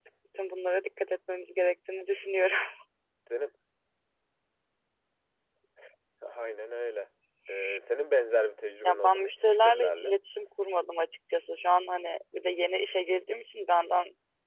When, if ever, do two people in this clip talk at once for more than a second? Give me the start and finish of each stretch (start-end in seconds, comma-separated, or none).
8.8-10.2